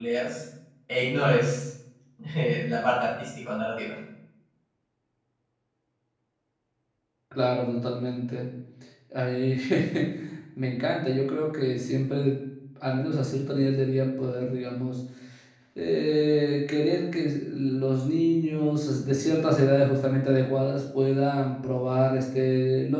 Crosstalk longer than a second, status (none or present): none